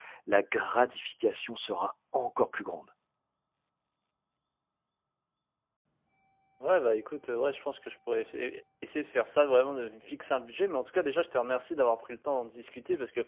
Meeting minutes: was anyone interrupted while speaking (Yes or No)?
No